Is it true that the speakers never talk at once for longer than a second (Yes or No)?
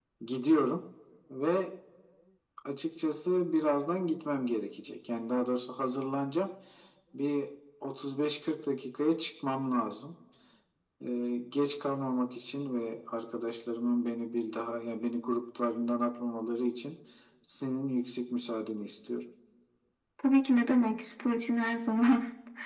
Yes